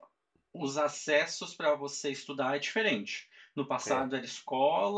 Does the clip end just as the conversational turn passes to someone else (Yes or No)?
No